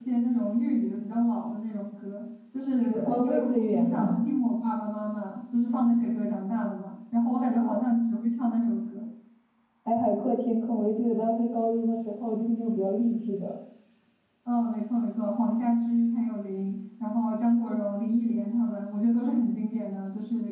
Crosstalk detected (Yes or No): Yes